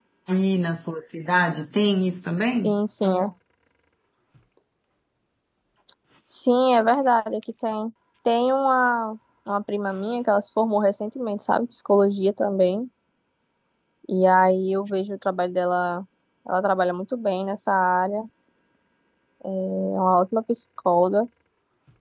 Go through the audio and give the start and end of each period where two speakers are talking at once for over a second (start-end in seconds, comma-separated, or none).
none